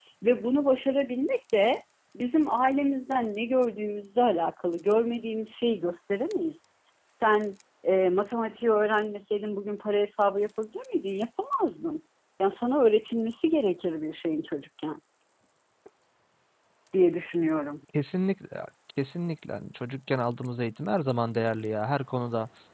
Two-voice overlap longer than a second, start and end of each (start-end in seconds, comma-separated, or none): none